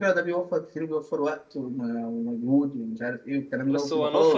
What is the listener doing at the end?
taking over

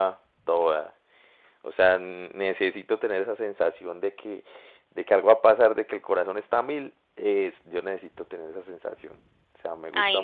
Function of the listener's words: taking over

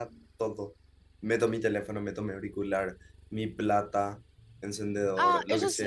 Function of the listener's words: taking over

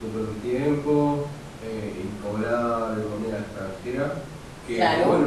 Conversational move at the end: listening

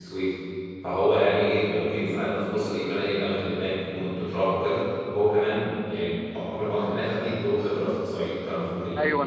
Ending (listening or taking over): taking over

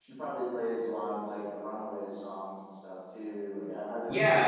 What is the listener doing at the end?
taking over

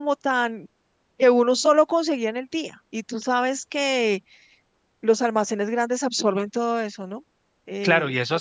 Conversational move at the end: taking over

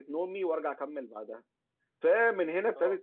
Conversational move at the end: listening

